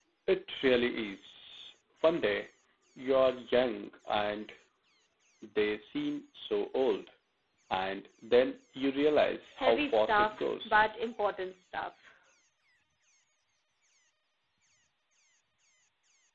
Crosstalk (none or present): present